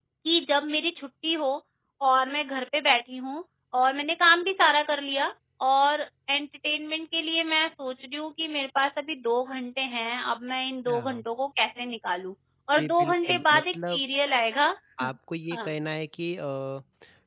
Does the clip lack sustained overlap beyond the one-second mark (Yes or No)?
No